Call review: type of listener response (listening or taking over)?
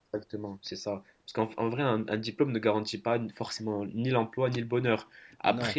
listening